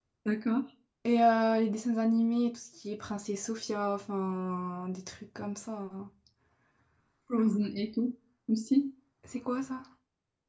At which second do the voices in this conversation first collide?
none

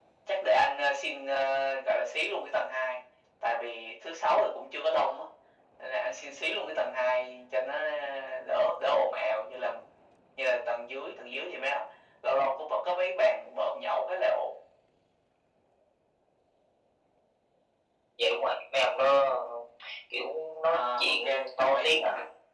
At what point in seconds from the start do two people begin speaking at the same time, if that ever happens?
21 s

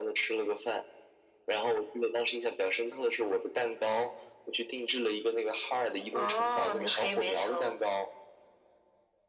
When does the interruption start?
6 s

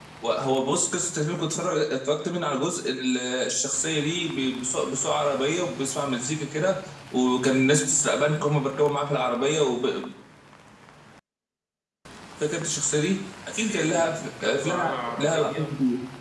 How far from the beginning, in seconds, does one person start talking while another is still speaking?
14 s

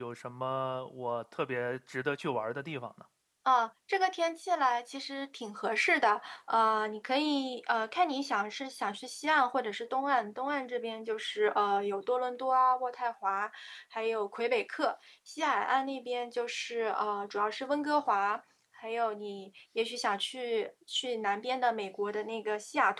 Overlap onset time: none

